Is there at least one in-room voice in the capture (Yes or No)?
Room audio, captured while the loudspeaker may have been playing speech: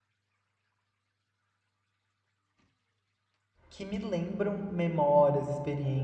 Yes